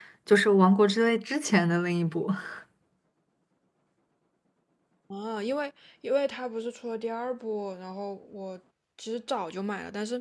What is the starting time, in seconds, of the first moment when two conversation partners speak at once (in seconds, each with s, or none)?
none